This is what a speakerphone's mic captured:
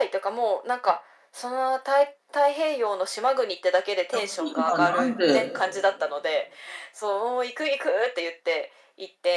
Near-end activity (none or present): present